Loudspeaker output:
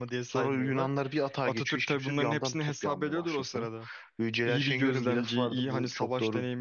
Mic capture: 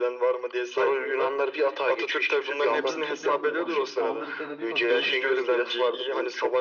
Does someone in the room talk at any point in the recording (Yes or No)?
Yes